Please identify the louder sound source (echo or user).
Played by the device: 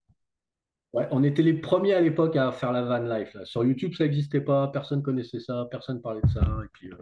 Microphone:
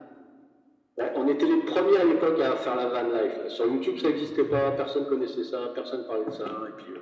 echo